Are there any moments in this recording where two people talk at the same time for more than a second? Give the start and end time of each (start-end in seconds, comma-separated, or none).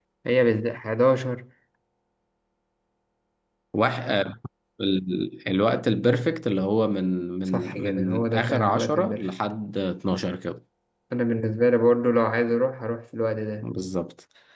7.5-9.3